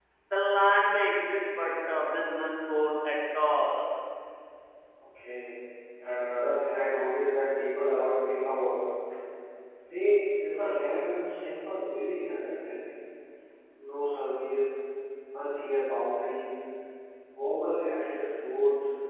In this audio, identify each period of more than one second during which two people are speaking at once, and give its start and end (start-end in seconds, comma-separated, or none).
none